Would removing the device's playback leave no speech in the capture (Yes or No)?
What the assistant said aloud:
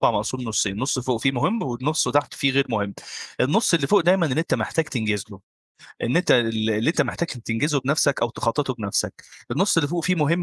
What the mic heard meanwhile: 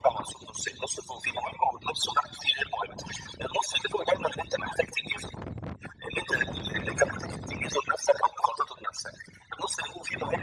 Yes